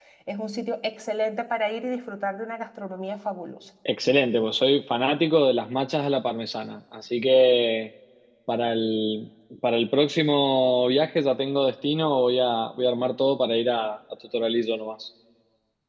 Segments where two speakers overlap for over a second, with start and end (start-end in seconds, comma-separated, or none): none